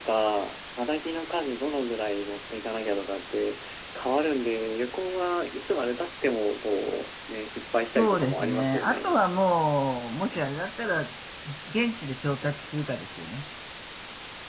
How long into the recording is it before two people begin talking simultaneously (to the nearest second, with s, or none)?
8 s